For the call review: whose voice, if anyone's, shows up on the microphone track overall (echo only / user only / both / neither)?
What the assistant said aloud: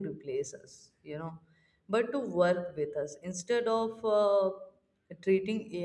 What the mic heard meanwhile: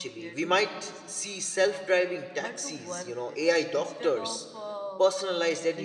both